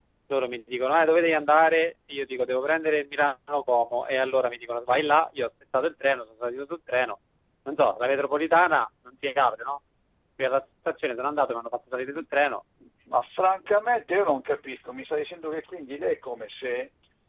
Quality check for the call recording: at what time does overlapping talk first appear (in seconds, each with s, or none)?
none